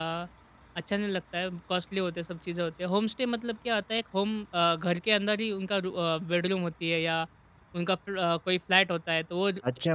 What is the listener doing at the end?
taking over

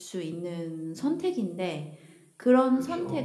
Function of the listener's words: listening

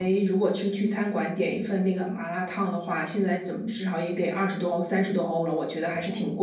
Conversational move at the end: taking over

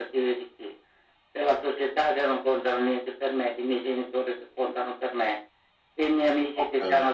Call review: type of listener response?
listening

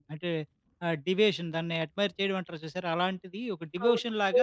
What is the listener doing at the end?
taking over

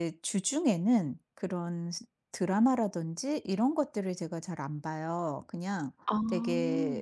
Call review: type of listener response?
listening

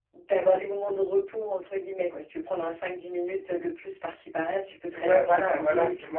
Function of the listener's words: taking over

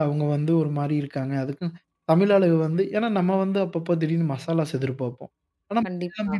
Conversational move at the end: listening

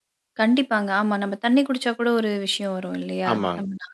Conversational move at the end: taking over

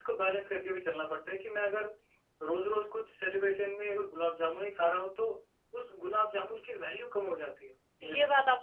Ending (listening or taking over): taking over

